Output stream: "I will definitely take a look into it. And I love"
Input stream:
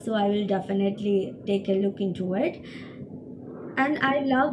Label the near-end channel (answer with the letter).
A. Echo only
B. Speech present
A